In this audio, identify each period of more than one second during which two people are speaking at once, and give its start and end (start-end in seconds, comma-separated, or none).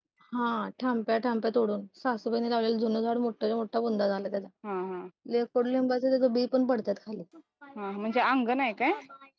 none